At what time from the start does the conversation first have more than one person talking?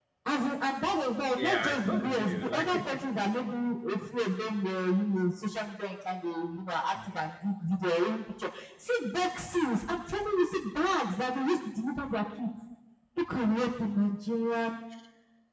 1.4 s

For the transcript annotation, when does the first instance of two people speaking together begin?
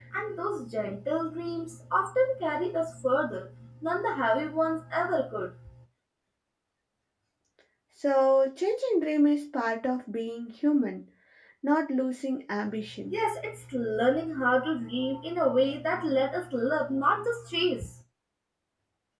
none

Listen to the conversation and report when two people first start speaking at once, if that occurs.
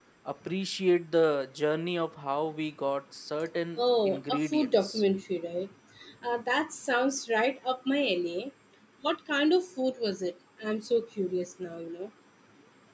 3.8 s

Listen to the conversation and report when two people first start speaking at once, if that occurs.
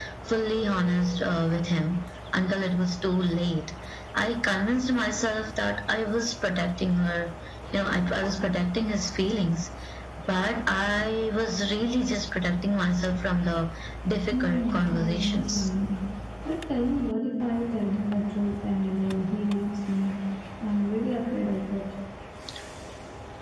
14.3 s

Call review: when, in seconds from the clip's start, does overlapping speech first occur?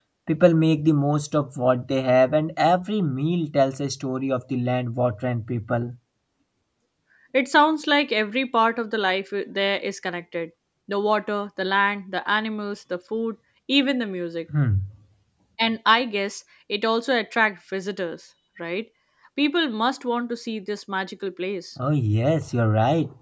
none

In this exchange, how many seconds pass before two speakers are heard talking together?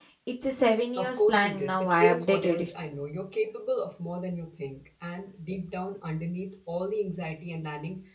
1.0 s

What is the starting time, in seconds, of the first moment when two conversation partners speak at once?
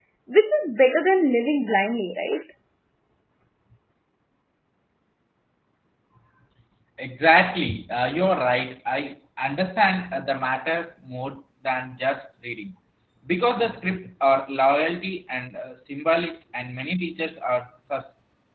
none

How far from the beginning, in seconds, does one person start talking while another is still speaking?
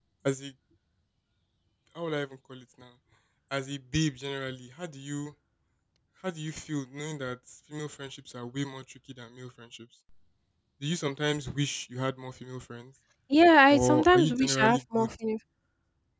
13.7 s

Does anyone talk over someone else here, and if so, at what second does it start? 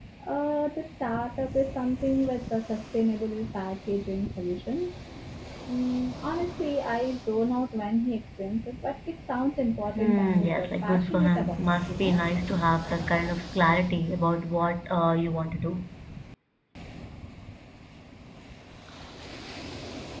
9.9 s

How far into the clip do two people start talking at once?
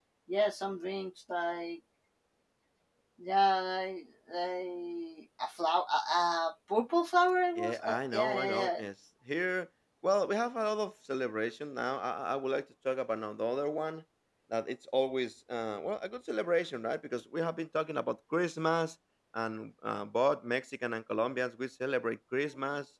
7.5 s

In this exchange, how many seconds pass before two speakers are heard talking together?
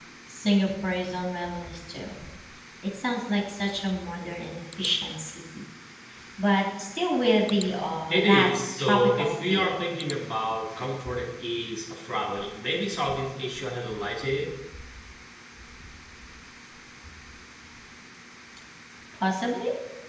8.0 s

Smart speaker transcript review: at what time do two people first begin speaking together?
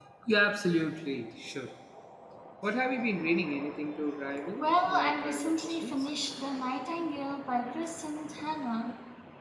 4.6 s

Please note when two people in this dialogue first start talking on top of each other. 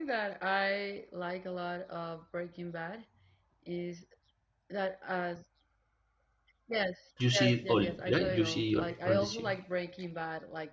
7.3 s

